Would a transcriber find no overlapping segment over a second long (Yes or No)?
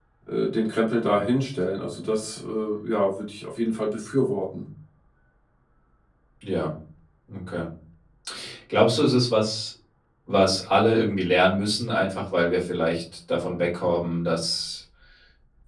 Yes